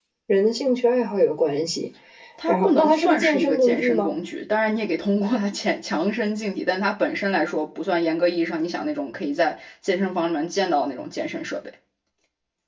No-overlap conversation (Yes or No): No